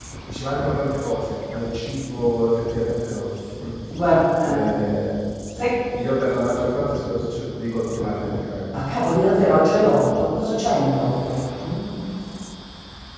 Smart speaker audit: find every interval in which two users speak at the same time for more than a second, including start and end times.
none

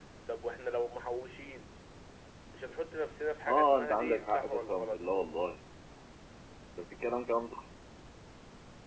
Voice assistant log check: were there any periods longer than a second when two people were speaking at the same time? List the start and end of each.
3.5-5.0

